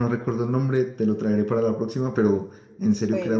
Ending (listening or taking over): listening